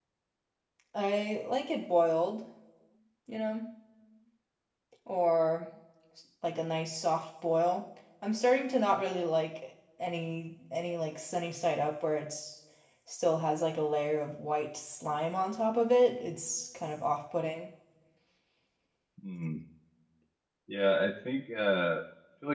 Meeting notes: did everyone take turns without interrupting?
Yes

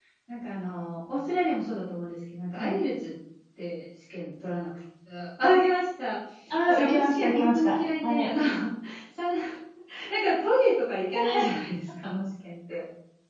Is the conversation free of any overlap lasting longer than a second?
No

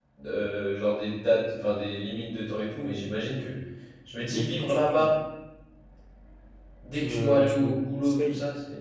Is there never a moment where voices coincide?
No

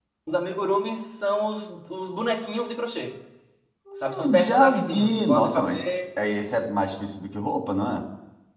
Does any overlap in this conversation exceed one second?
Yes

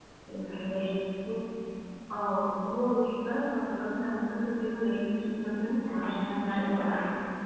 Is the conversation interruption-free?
No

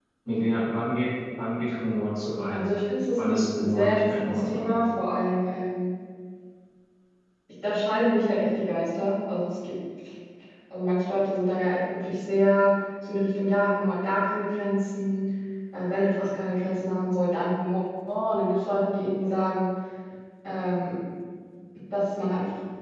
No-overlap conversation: No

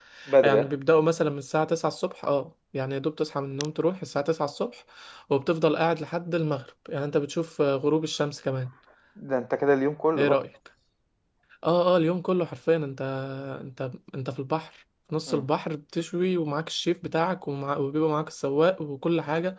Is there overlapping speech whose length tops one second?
No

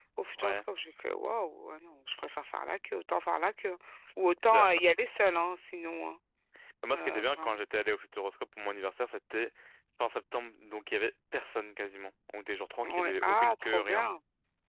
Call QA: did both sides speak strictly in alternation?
No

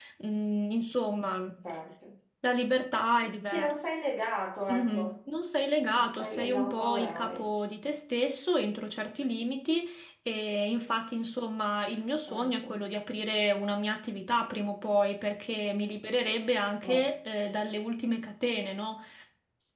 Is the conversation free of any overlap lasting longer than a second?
No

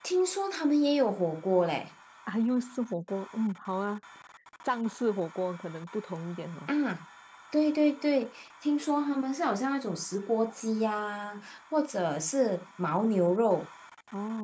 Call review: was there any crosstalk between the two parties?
No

